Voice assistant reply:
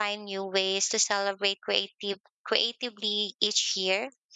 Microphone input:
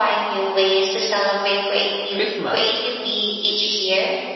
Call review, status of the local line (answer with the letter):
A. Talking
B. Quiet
A